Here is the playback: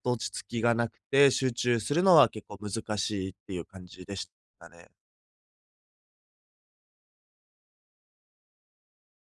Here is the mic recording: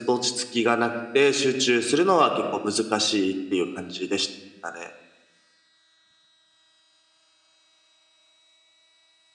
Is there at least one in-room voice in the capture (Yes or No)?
No